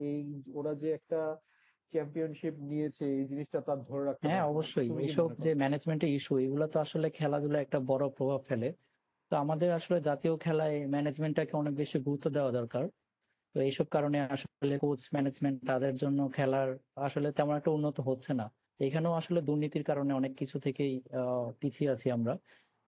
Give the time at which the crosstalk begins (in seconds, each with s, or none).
4.2 s